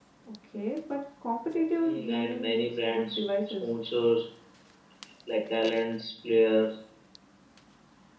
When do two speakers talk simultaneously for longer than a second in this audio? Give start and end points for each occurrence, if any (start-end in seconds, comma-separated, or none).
1.7-3.6